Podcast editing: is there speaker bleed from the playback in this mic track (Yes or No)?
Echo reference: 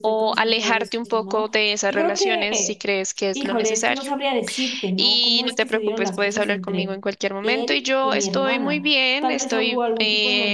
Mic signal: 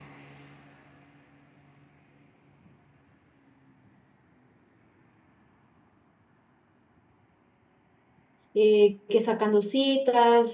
No